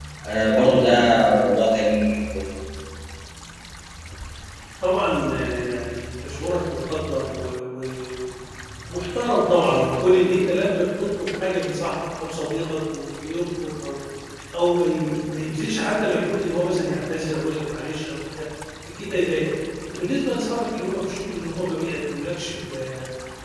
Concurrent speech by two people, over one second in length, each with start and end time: none

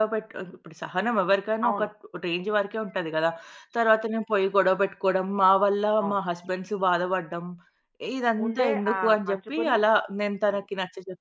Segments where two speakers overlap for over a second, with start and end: 8.4-9.8

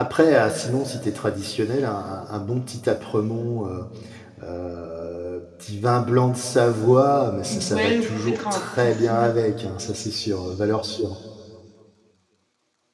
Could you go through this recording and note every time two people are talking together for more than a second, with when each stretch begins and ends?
7.5-9.3

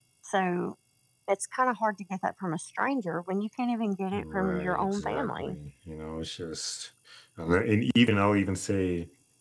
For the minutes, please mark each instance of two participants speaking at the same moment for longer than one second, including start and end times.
4.1-5.6

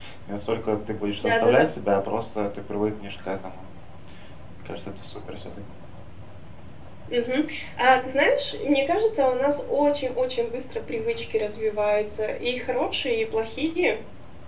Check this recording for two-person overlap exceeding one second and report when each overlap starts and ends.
none

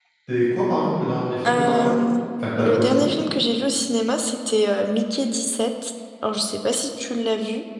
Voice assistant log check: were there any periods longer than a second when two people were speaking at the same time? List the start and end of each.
none

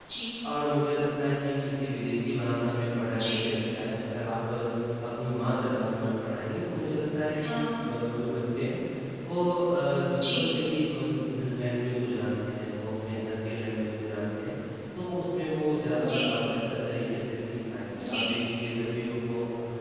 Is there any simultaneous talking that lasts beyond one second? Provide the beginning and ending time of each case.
none

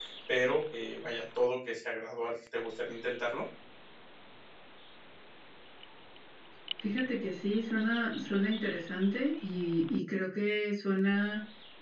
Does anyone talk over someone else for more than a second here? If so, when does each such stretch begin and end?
none

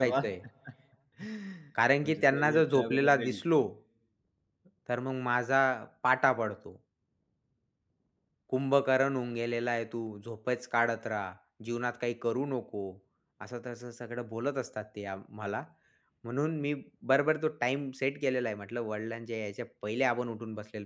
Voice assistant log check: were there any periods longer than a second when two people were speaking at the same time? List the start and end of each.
2.0-3.4

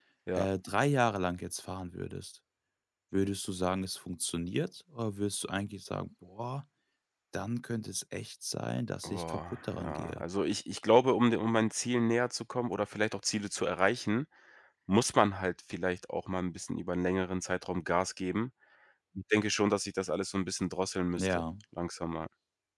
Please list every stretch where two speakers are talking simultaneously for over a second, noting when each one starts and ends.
9.0-10.2

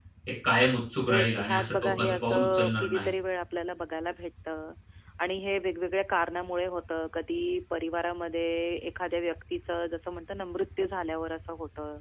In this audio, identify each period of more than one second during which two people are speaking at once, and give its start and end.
1.1-3.1

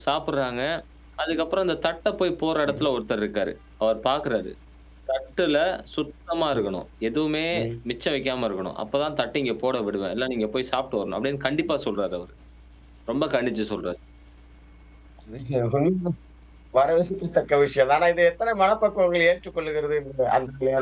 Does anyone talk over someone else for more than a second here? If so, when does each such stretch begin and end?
none

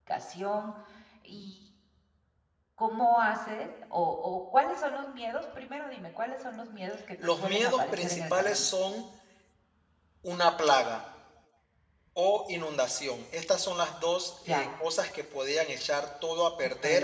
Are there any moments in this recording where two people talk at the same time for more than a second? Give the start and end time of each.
7.4-8.6

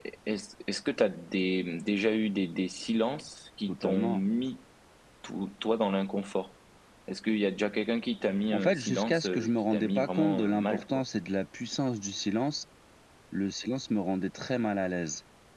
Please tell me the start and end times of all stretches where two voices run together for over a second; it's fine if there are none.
8.5-11.0

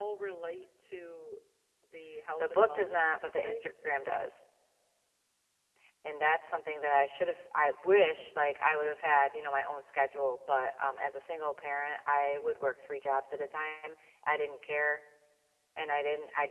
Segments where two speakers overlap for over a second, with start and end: 2.4-3.7

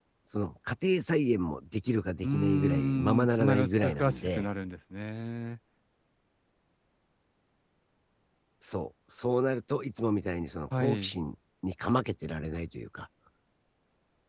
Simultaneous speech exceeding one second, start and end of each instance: 2.2-4.5

